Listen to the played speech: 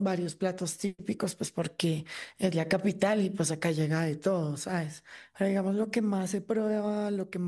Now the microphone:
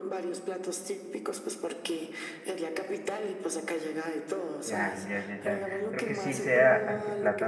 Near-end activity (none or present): present